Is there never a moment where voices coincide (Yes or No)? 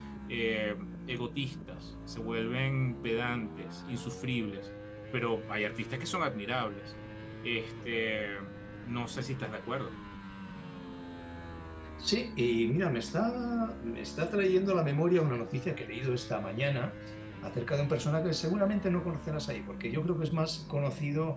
Yes